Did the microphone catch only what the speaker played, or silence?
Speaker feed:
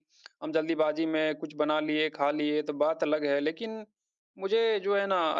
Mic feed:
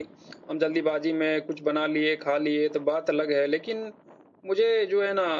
Yes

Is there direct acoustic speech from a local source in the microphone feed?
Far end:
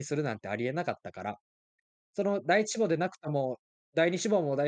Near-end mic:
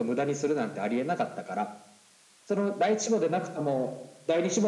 No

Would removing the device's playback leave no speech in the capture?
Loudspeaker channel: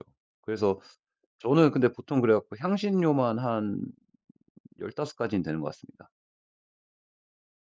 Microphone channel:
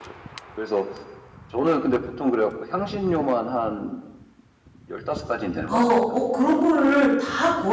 No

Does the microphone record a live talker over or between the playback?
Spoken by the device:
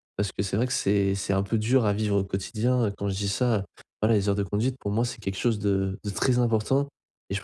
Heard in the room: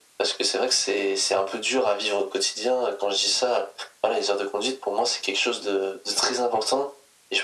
No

